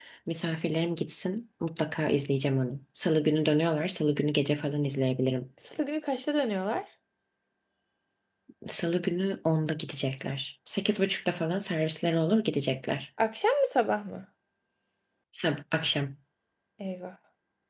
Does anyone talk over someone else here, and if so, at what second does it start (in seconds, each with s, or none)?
none